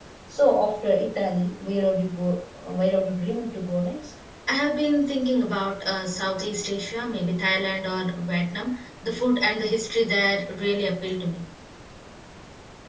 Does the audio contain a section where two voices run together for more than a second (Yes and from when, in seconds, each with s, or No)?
No